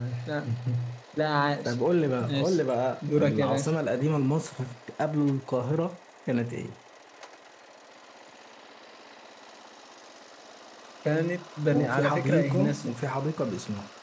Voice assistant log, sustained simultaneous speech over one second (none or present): present